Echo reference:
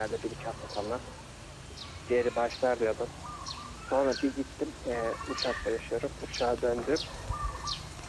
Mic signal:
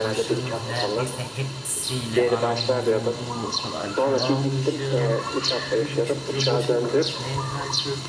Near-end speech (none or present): present